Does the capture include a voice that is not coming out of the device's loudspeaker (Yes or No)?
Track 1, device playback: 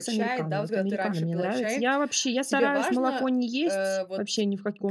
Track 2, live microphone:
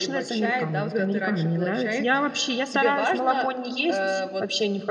No